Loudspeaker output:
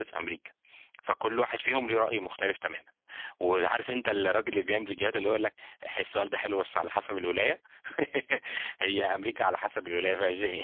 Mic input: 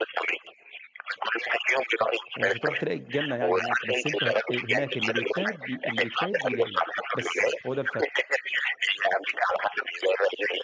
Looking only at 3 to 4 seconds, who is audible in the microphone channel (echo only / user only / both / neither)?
both